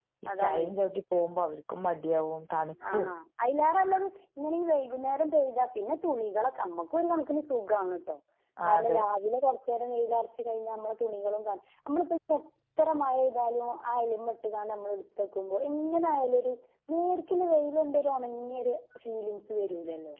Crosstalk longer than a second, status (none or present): none